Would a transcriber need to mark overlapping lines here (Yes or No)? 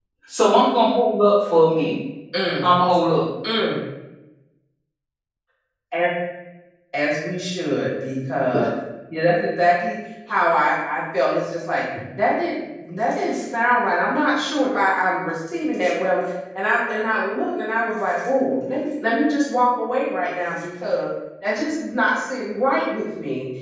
No